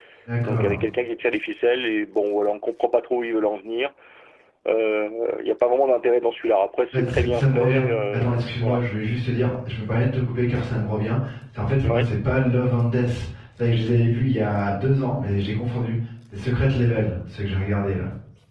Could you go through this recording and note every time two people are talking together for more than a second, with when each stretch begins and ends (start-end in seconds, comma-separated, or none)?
6.9-8.8